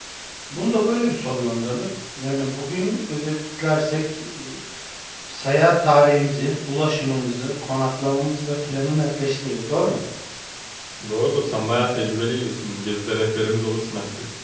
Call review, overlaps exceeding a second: none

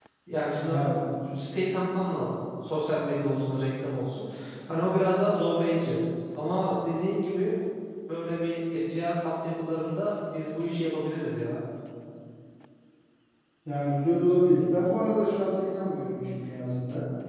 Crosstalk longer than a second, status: none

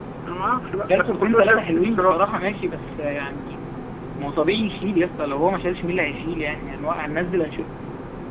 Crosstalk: present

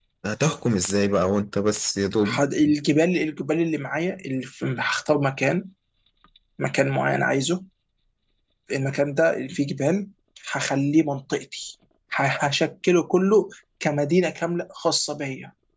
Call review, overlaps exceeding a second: none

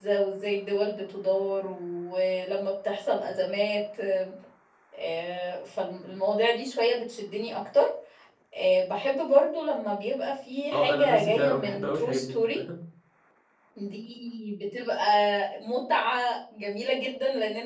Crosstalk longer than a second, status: present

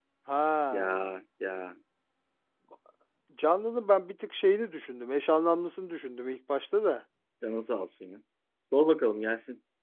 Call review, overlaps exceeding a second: none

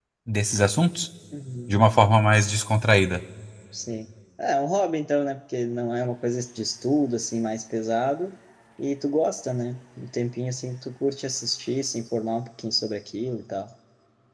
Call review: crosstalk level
none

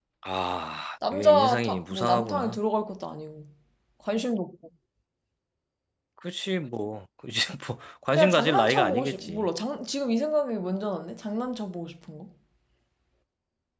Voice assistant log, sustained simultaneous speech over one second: present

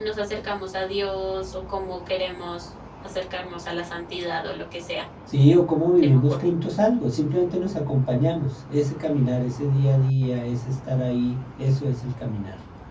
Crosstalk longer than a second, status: none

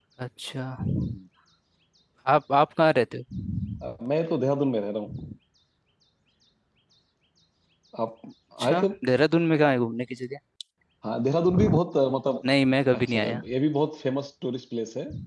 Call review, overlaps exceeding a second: none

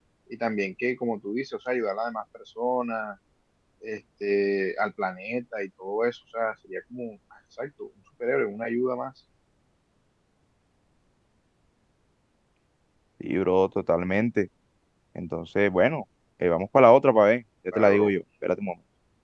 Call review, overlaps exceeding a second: none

